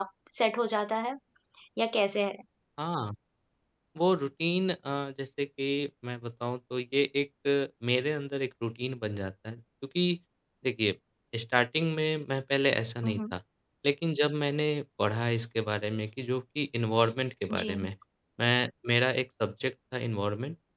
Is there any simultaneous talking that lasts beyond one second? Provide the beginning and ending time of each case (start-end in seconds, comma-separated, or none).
none